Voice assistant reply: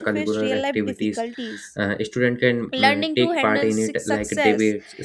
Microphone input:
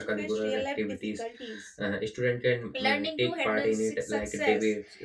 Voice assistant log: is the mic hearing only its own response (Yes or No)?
Yes